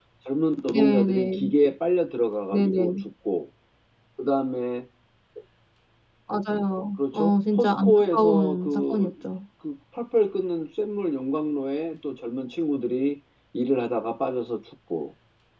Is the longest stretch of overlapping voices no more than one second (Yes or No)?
No